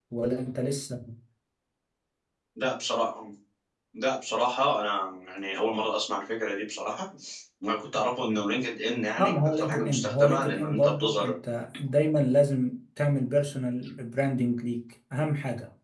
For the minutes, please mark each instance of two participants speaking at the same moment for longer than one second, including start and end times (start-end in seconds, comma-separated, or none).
9.2-11.3